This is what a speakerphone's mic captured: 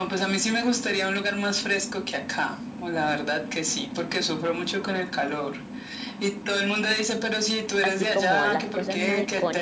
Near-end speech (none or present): present